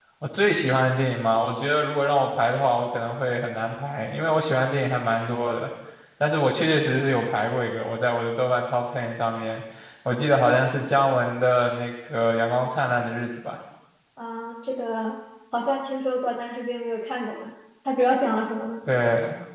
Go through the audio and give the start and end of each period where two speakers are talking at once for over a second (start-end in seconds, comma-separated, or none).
none